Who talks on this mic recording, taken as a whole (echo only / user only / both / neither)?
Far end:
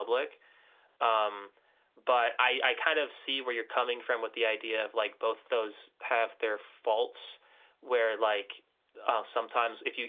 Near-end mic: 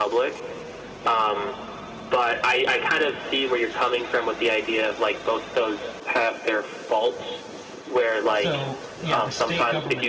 both